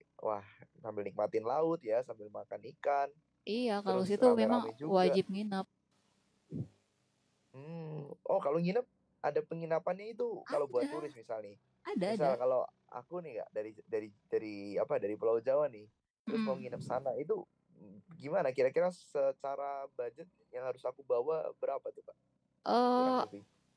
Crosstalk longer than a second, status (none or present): present